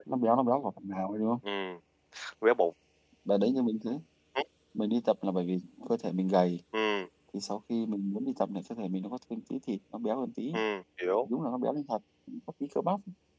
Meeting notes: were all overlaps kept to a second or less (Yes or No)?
Yes